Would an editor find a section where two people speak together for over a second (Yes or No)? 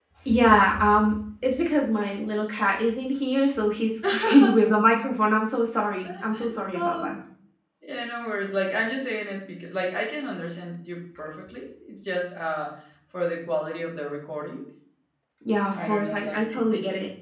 Yes